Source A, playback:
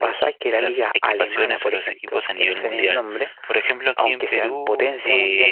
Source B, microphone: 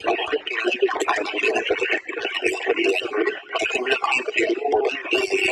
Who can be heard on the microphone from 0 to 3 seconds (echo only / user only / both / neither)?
echo only